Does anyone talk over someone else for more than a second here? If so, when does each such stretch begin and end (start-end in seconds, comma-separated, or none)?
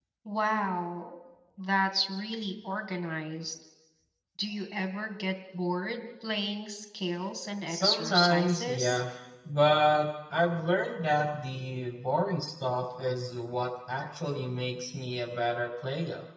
7.7-9.0